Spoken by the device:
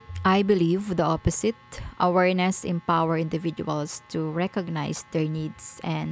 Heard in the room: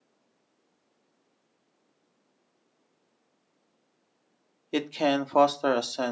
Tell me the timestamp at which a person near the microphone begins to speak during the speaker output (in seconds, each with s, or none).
4.7 s